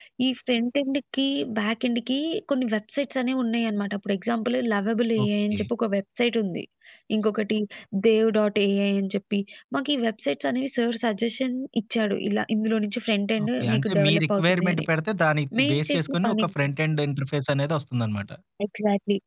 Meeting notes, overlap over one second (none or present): present